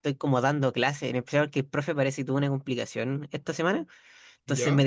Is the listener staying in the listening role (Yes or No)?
Yes